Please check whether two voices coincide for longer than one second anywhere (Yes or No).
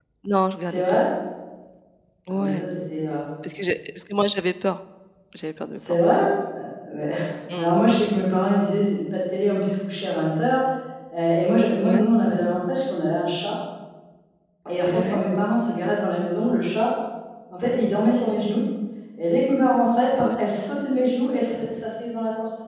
No